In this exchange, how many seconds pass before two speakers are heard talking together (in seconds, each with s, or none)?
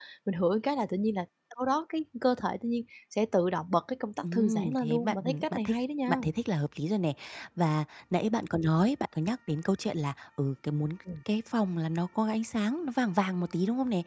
4.2 s